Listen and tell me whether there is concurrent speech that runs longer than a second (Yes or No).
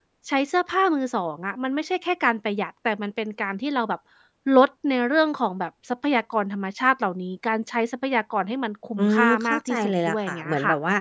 Yes